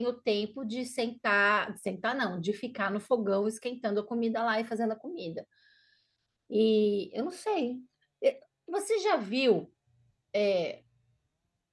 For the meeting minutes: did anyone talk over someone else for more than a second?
No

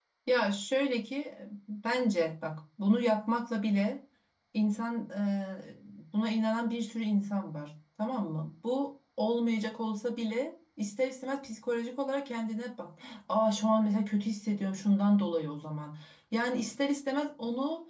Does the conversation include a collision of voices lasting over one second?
No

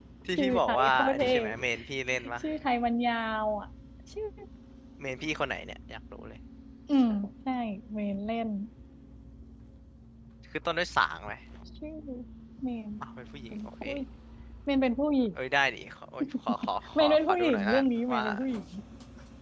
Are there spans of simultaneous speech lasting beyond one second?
Yes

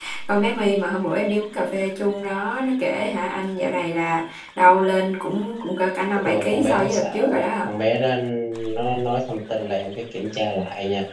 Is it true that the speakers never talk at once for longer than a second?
No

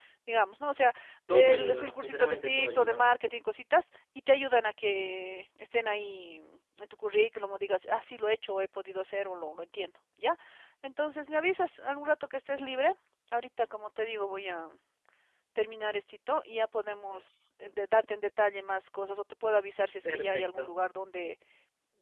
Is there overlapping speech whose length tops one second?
Yes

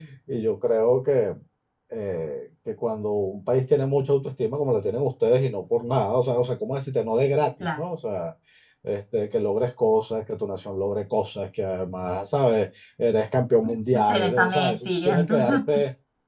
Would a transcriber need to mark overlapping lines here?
Yes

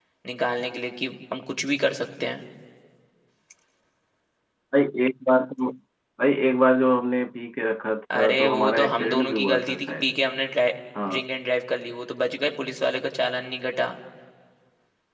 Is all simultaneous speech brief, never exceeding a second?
No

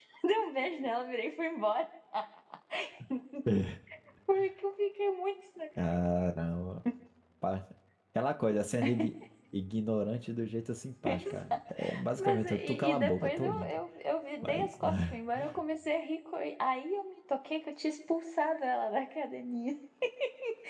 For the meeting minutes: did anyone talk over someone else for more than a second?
Yes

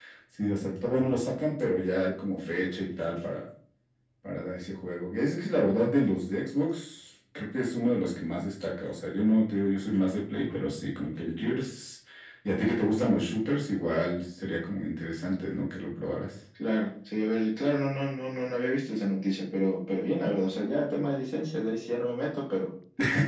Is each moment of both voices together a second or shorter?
Yes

